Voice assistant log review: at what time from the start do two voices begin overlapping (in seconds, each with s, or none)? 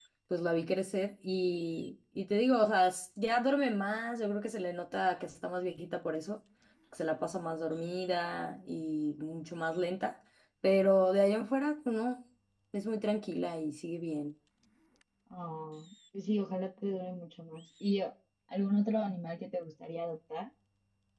none